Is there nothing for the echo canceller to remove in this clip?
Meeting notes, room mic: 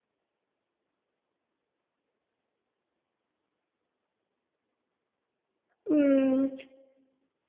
Yes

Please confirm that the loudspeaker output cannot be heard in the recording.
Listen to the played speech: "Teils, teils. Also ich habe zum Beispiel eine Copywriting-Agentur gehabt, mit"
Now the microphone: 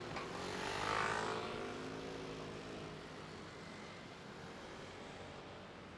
Yes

